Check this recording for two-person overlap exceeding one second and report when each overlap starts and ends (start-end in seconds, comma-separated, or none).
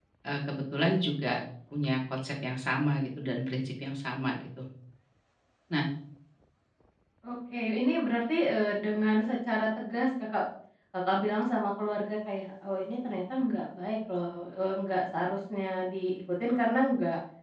none